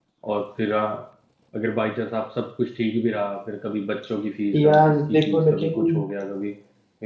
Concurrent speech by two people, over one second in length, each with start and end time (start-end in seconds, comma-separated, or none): 4.5-6.0